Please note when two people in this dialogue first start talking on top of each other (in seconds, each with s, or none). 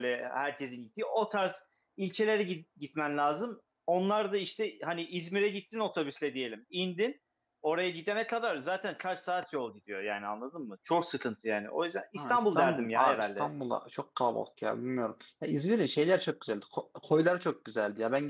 12.2 s